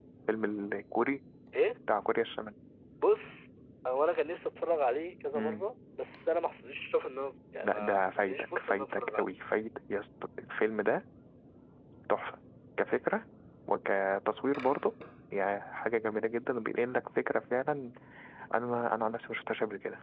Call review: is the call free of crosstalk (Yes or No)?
No